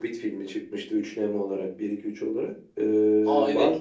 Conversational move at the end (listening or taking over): taking over